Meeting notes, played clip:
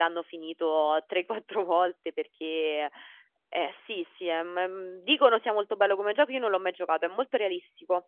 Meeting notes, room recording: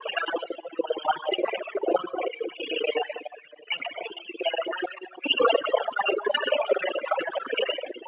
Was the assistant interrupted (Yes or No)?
No